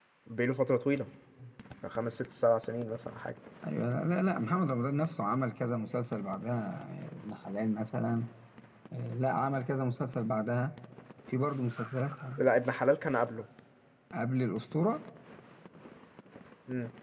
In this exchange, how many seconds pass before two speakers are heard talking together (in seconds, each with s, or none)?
none